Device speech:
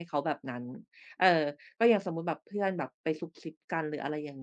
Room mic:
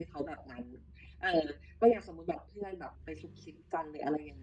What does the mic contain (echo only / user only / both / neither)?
echo only